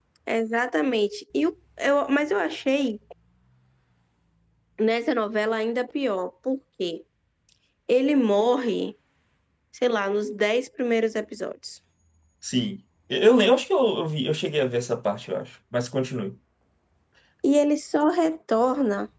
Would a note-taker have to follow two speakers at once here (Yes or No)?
No